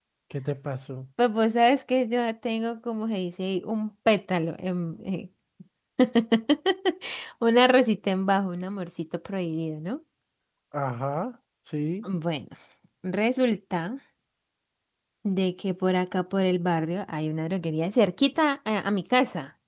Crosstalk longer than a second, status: none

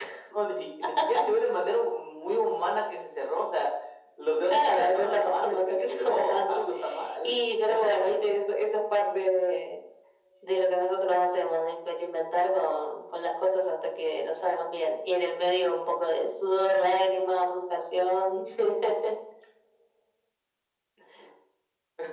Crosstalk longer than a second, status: present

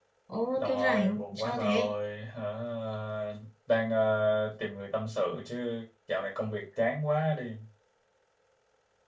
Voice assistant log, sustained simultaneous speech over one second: present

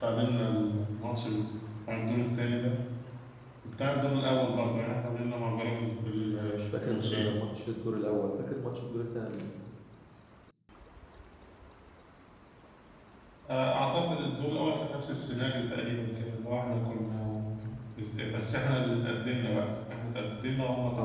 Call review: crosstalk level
present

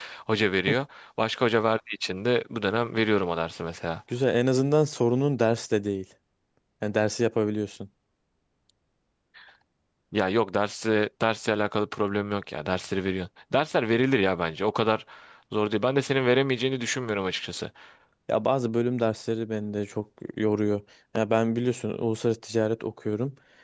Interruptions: none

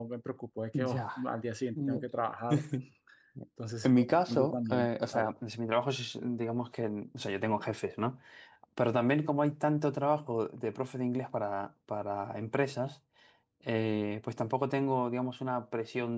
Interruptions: present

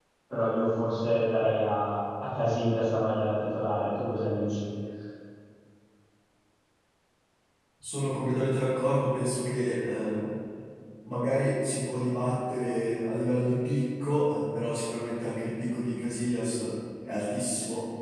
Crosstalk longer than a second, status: none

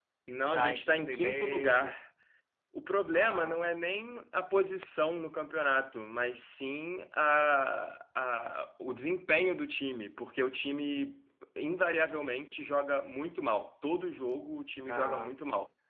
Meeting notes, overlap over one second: present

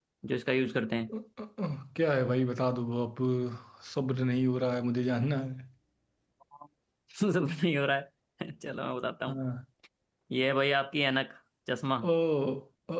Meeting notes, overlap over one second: none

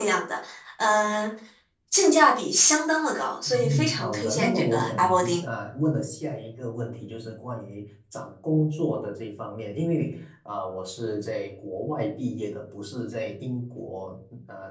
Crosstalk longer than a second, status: present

